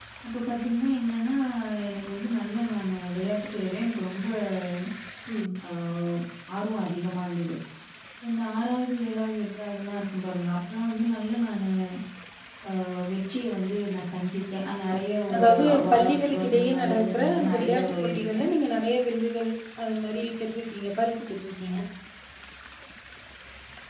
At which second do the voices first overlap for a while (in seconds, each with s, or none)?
15.3 s